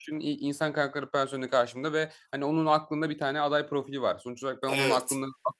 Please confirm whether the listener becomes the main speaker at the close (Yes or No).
No